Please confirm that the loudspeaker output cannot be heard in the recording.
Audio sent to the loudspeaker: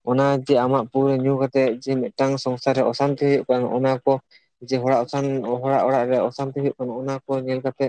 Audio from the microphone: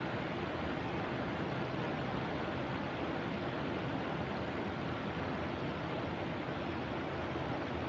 Yes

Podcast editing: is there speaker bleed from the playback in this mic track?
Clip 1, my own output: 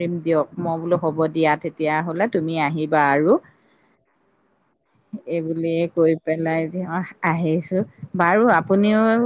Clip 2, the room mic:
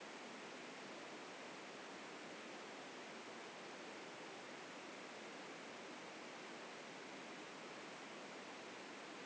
No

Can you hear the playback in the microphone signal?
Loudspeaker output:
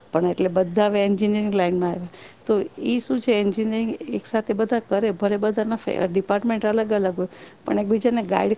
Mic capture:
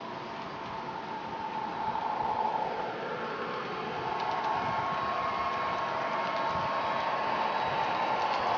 No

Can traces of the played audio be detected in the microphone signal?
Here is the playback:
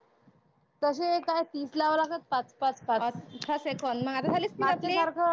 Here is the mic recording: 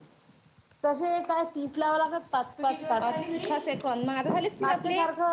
Yes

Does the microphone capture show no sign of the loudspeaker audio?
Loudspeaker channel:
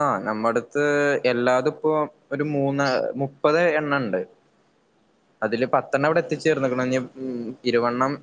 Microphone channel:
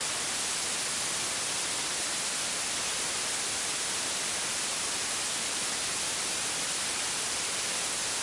Yes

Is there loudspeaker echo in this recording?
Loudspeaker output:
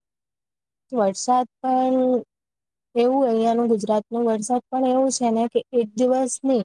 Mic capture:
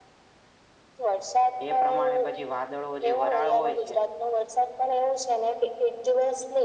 Yes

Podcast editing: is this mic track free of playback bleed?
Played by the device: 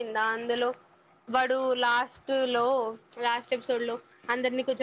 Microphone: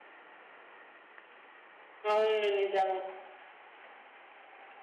Yes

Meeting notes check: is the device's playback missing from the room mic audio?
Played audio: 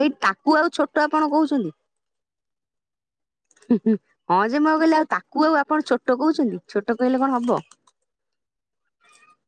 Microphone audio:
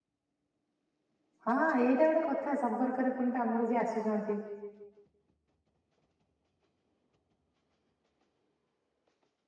Yes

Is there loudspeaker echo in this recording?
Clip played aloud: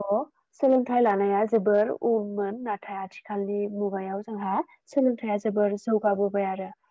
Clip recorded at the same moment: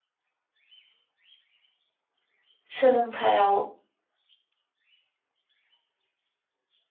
No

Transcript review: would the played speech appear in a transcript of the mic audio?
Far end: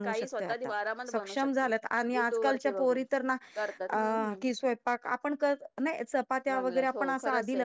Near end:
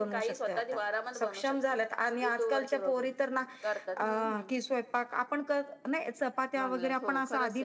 Yes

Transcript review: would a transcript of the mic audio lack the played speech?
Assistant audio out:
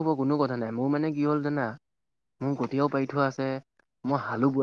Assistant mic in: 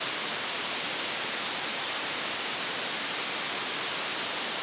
Yes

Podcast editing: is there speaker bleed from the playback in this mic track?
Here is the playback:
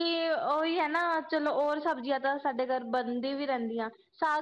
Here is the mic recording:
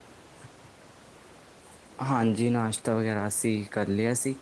No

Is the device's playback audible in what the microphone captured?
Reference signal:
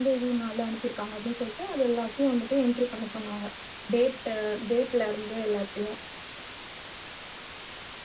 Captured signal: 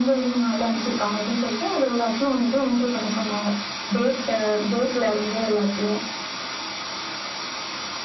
Yes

